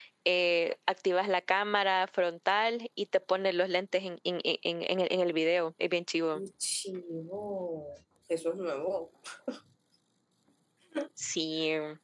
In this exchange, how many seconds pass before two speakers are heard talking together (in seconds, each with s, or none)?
none